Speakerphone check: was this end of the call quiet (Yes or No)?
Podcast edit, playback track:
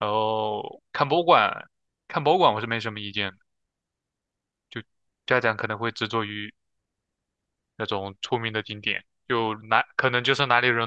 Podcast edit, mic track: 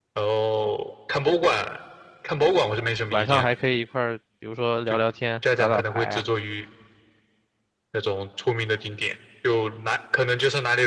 No